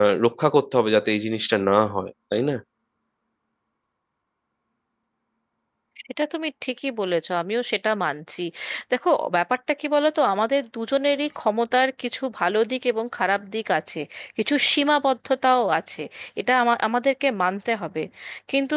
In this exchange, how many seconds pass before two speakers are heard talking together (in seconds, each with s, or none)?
none